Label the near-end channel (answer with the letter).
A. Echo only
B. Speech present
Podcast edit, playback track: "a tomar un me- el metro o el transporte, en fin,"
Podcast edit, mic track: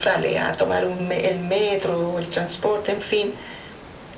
A